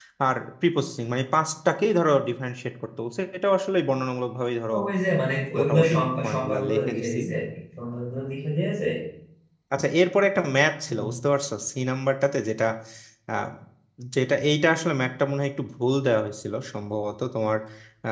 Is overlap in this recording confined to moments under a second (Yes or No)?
No